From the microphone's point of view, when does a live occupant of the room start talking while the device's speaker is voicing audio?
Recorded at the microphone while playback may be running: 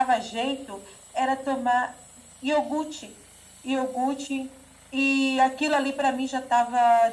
none

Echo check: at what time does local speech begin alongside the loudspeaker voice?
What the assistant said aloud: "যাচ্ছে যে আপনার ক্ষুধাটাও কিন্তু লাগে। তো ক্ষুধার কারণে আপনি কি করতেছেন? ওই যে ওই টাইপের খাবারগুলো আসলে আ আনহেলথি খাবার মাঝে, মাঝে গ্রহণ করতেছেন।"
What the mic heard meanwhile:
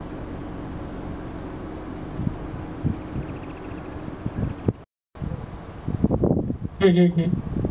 6.8 s

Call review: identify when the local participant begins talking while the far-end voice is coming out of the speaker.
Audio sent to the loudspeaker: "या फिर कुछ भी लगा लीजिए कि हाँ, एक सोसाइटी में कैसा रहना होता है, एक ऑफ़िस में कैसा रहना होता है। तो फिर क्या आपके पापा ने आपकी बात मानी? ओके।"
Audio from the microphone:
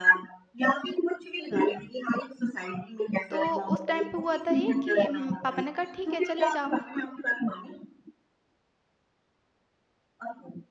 3.3 s

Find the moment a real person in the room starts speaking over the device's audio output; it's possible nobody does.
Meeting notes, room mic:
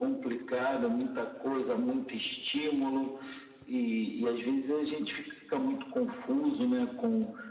none

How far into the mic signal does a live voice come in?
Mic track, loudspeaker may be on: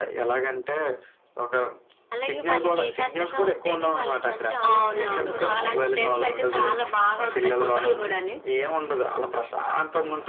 2.1 s

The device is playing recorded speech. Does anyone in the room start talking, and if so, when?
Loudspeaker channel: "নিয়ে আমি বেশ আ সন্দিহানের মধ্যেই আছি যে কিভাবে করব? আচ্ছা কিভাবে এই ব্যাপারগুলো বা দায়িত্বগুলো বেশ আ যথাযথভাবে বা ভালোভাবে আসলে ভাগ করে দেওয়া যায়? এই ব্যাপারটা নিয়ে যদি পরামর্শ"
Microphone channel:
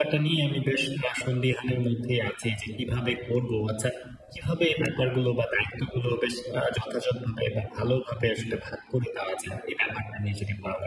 none

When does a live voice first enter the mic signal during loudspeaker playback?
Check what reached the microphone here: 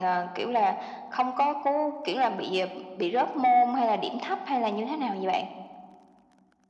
none

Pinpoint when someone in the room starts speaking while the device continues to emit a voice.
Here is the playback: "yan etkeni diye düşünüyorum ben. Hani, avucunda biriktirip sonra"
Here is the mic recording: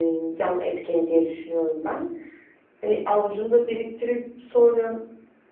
none

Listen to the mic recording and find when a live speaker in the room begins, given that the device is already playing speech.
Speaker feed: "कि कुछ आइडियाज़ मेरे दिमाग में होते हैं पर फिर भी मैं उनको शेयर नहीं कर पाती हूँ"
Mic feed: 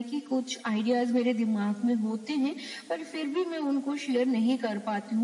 none

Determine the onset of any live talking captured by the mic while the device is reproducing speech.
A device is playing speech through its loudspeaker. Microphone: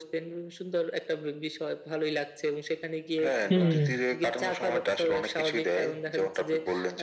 3.5 s

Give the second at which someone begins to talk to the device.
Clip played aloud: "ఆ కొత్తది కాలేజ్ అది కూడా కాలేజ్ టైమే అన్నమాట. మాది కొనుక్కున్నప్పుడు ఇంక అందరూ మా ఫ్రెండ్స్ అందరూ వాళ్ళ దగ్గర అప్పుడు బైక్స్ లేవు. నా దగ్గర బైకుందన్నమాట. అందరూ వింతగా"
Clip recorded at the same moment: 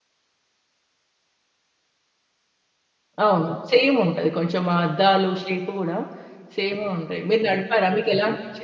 3.2 s

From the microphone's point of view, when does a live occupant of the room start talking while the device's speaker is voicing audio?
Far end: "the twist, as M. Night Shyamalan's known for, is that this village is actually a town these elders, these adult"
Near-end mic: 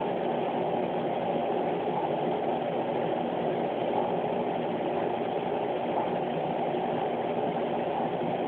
none

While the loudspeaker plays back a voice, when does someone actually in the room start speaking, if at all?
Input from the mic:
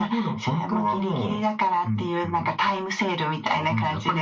none

